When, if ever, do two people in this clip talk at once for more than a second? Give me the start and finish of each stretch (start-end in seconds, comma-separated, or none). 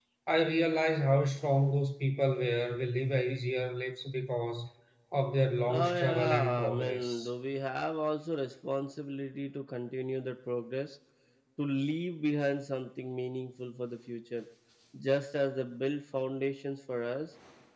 5.8-7.3